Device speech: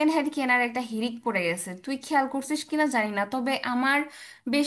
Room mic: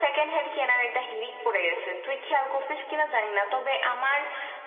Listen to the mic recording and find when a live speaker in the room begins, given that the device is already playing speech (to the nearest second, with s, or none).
none